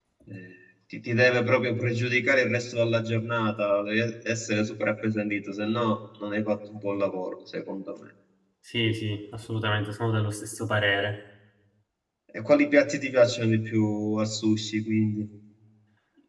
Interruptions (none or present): none